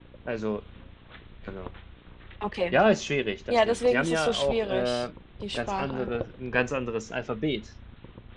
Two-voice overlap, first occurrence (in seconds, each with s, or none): 3.5 s